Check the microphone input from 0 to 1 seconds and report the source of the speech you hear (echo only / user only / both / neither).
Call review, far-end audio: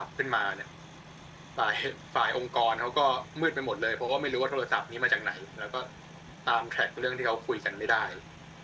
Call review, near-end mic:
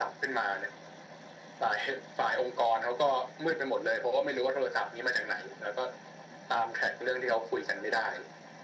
echo only